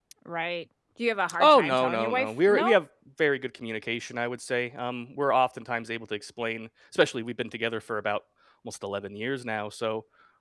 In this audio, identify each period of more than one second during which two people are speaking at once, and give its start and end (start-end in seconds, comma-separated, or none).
1.4-2.8